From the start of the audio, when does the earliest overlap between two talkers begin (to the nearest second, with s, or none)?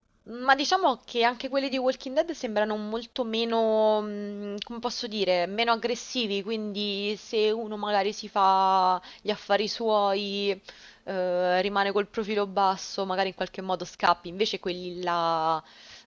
none